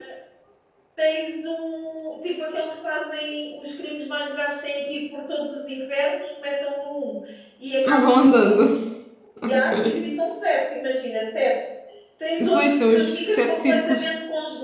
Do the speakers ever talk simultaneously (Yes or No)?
Yes